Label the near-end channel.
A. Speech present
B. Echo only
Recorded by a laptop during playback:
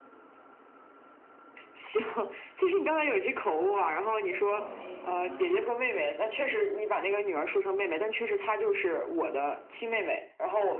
A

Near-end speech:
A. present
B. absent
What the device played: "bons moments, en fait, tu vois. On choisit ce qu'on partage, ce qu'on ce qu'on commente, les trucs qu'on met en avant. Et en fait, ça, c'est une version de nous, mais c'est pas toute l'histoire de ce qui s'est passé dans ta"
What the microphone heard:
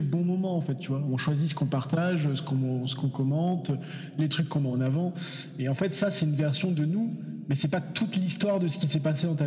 B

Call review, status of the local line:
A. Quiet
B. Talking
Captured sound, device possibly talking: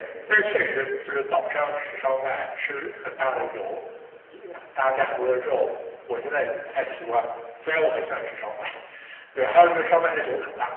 A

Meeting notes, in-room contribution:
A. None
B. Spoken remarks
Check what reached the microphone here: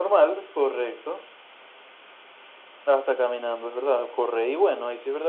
A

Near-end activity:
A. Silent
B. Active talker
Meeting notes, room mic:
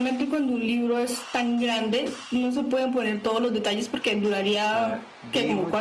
B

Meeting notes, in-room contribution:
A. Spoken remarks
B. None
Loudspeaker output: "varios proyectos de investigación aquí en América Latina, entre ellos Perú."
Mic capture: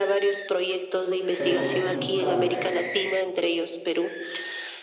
A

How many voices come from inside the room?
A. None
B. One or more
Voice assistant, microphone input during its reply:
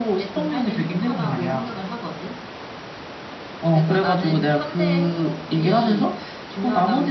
A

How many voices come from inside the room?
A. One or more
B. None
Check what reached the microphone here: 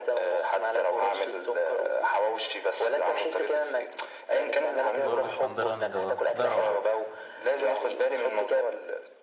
A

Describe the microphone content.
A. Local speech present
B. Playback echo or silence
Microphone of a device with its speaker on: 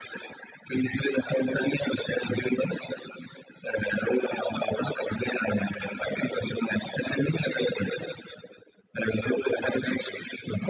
B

